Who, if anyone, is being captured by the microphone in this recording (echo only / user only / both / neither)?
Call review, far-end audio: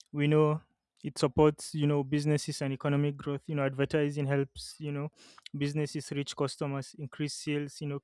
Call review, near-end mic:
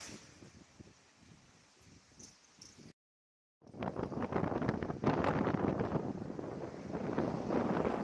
neither